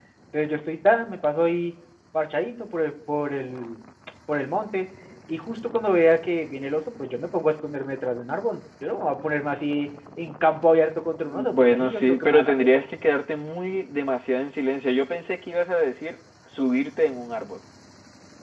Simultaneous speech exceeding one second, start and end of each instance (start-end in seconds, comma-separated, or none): 11.2-12.5